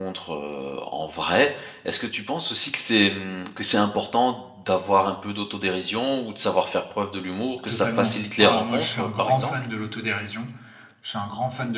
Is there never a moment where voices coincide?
No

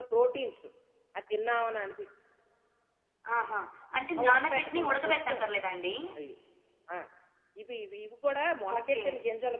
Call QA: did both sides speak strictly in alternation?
No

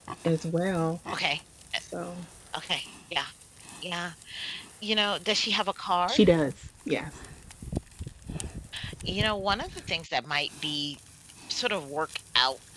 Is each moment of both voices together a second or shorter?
Yes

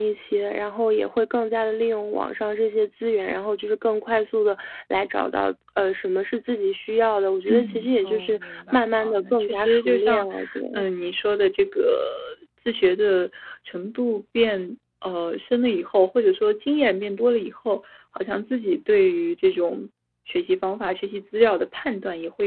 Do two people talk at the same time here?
Yes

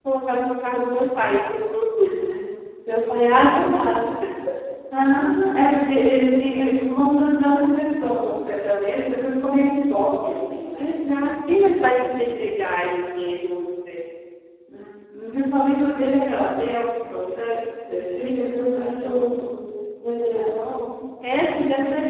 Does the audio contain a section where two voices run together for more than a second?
Yes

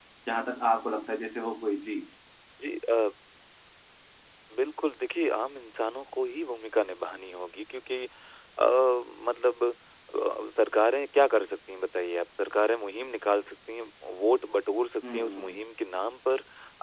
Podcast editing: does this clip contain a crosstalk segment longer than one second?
No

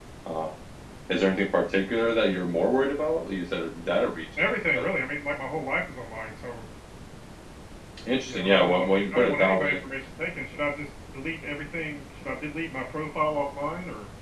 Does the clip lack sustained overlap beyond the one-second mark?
No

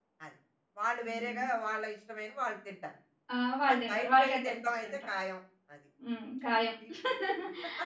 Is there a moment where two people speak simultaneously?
Yes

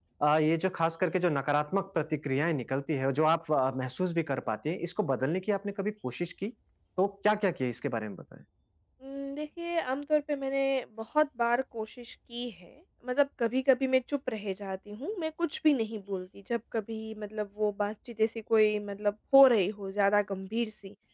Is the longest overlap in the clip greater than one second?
No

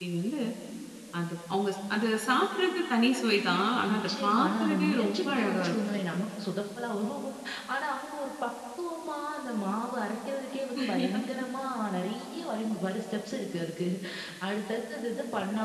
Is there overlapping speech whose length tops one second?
Yes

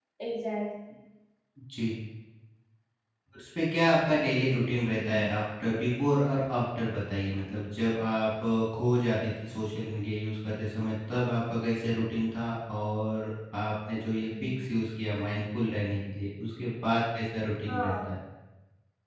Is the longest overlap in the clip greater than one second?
No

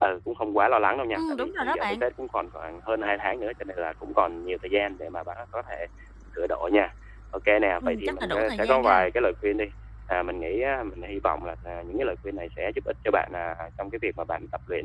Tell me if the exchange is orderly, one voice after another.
No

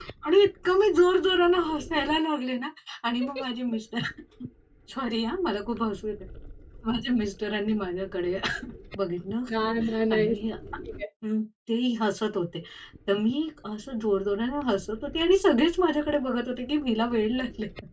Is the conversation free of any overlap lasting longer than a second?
Yes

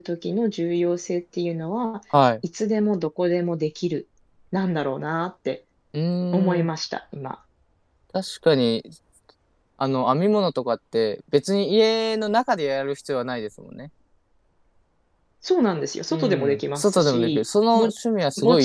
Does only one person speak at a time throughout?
No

